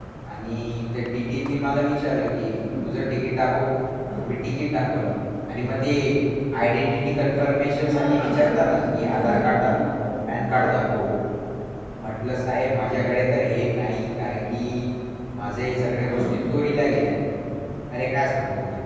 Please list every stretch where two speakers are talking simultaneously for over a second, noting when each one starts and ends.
7.8-9.7

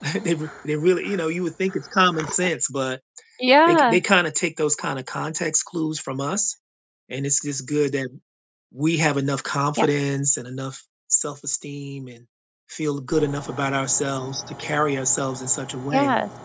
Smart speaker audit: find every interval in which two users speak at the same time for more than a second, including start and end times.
none

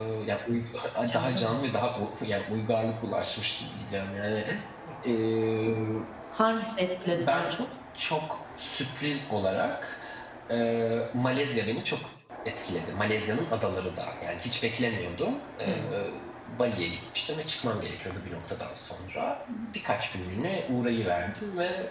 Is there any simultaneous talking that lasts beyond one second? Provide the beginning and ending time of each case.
none

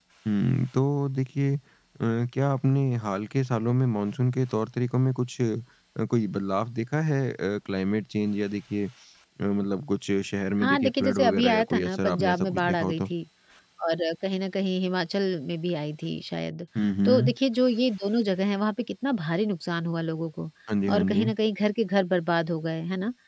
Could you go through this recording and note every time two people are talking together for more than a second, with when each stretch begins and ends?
10.6-13.0

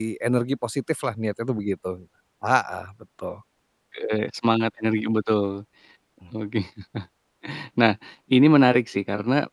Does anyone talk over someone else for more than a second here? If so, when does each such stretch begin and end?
none

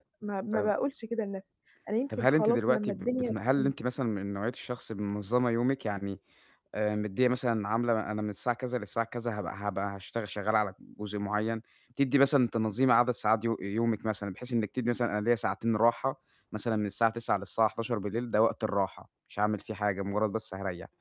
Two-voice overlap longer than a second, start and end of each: 2.2-3.7

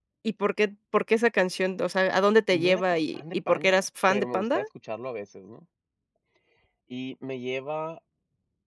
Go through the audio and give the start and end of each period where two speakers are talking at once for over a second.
2.6-4.6

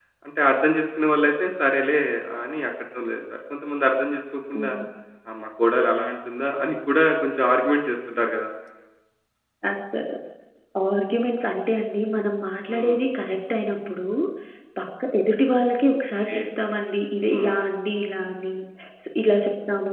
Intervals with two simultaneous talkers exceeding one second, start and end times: none

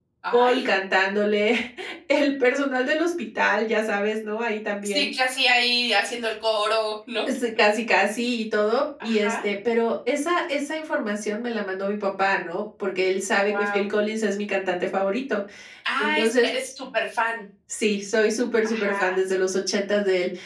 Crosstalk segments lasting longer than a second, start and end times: none

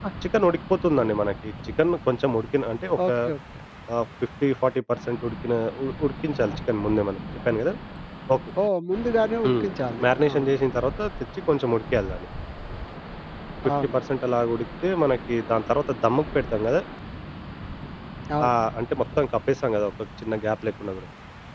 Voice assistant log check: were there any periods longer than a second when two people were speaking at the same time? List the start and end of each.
none

